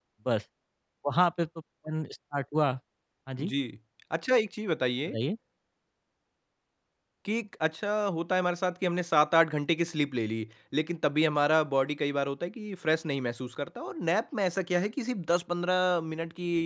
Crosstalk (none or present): none